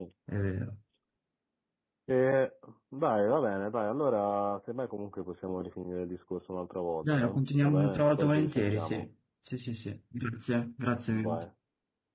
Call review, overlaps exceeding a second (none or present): present